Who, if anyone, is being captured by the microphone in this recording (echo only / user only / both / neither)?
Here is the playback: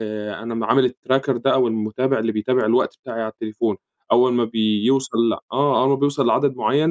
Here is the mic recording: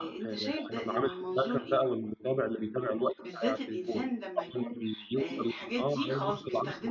both